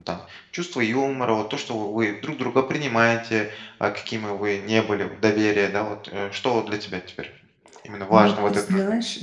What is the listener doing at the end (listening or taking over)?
taking over